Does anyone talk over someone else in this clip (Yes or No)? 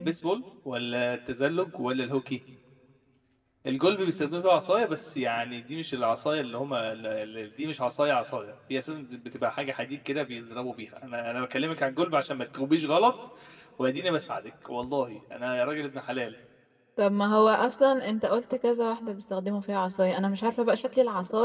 No